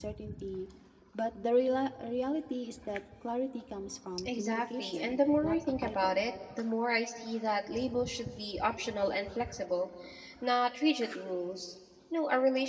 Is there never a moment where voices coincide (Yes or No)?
No